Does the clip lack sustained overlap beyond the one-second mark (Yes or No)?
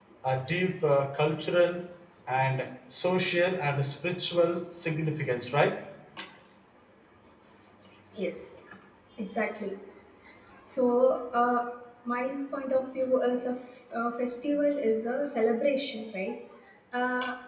Yes